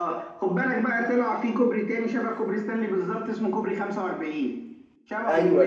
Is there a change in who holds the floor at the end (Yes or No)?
Yes